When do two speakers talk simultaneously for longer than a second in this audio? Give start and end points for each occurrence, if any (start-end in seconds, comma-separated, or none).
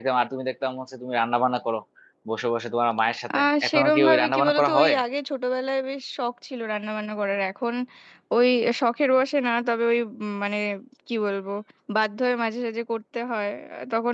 3.4-4.9